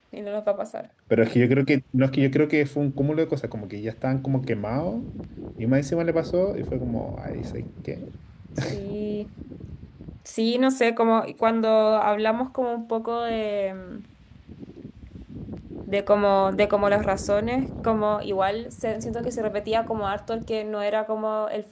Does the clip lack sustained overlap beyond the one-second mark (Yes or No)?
Yes